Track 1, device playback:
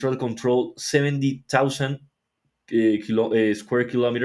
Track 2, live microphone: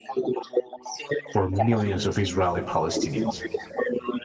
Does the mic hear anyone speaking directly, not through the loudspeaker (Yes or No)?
Yes